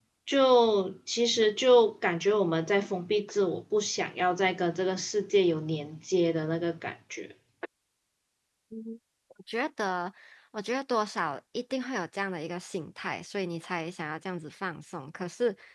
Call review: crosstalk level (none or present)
none